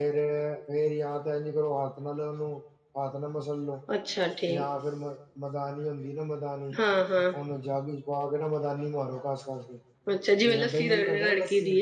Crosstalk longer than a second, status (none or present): present